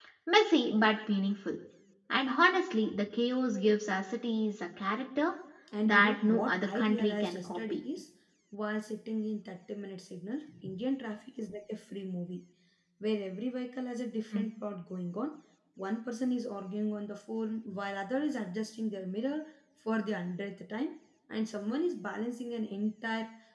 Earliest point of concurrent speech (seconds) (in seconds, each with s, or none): 5.8 s